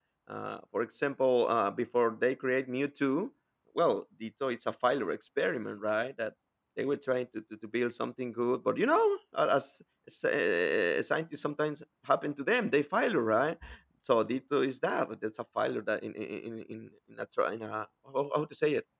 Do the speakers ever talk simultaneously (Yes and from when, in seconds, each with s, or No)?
No